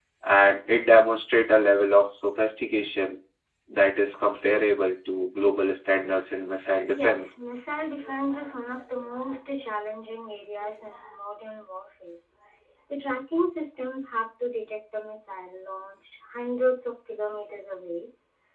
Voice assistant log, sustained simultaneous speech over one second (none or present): none